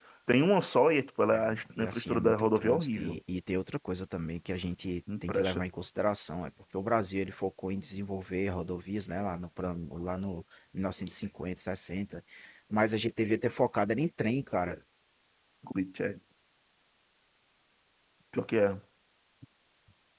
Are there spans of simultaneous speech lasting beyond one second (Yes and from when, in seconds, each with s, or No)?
Yes, from 1.3 s